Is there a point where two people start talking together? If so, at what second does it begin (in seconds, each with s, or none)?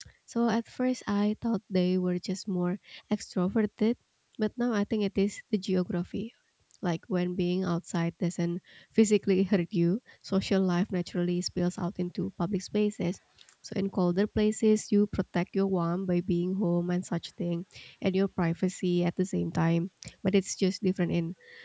none